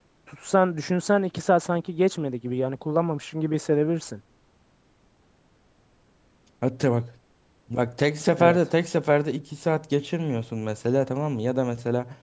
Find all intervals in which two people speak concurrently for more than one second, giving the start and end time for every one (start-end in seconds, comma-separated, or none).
none